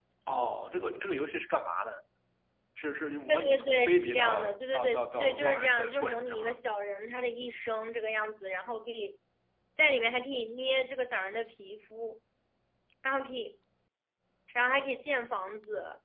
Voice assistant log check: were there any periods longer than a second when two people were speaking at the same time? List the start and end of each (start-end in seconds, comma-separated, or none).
3.3-6.4